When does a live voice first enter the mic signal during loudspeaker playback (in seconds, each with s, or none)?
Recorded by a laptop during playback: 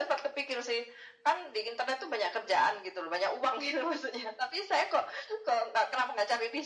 none